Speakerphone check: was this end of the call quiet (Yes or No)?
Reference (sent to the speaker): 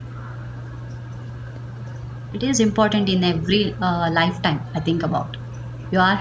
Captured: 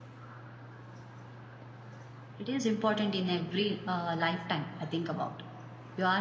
Yes